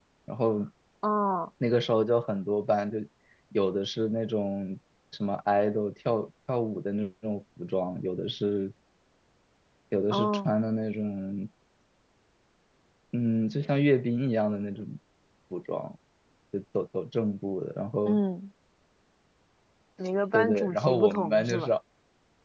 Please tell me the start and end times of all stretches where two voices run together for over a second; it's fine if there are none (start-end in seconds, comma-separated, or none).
20.3-21.7